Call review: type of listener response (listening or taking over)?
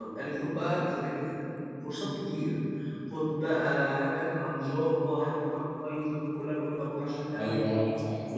taking over